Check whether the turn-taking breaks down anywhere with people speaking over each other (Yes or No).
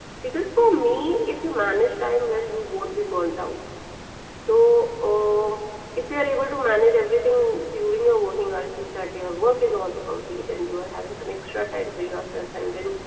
No